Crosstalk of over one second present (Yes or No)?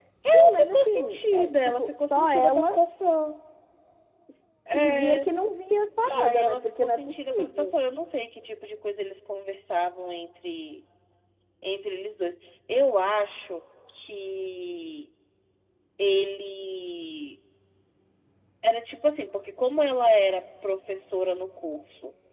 Yes